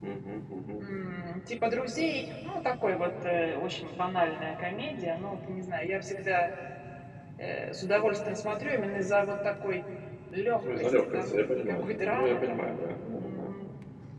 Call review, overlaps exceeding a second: present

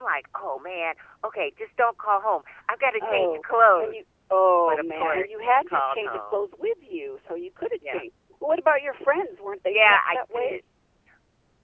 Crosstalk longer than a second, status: present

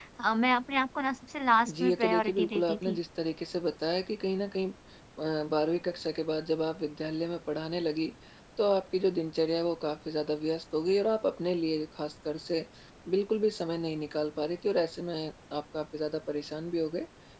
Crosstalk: present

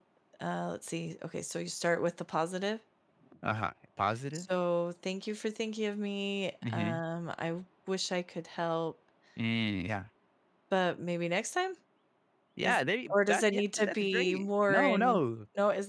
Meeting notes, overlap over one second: present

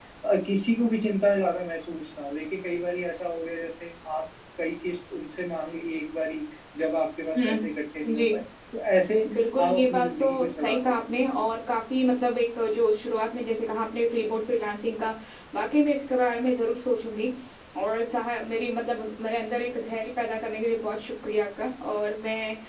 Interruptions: present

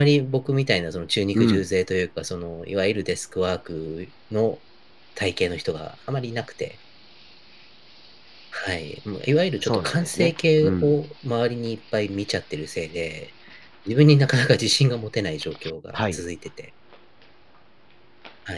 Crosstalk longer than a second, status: present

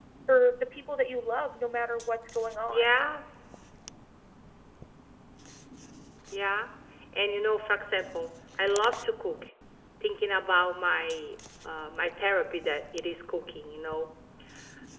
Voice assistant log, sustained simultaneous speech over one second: none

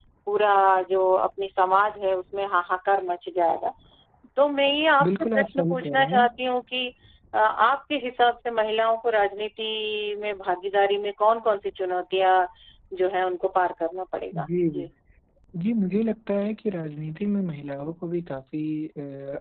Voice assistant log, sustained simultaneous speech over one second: present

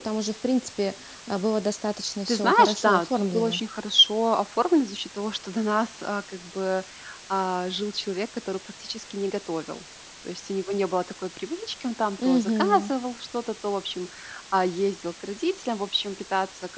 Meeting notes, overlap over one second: present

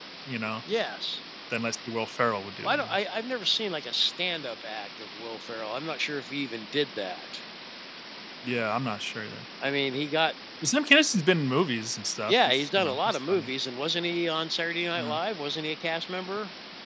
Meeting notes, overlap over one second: present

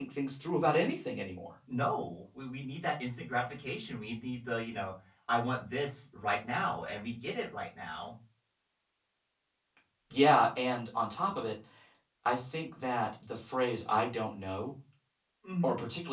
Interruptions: none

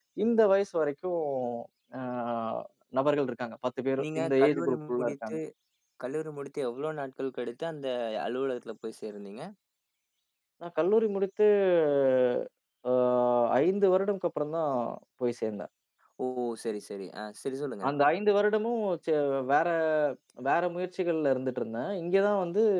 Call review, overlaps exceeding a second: present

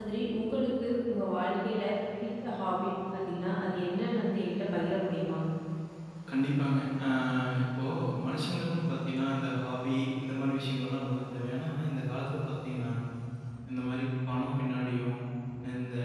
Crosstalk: none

